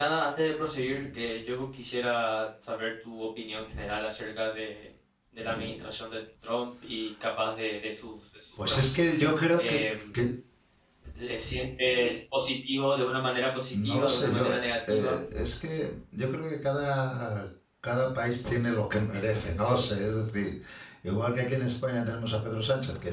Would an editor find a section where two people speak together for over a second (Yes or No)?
Yes